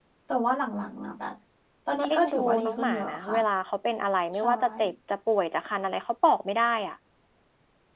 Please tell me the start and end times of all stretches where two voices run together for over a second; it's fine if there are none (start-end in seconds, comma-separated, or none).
2.0-3.4